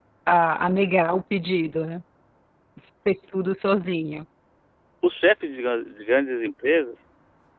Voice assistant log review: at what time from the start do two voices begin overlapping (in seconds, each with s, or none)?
none